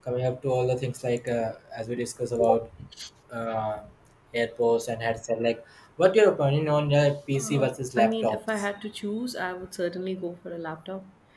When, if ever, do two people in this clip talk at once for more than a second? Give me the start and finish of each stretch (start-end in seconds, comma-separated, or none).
7.3-8.6